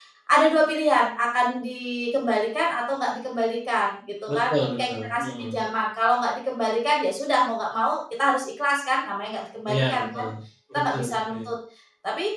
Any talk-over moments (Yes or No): Yes